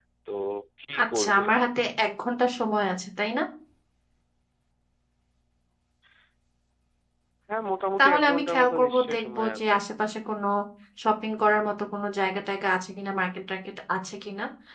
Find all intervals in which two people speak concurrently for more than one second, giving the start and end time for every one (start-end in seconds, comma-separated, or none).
8.0-9.7